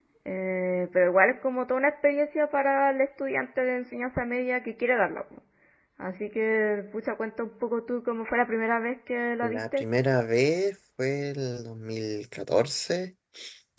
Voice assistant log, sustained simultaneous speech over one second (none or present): none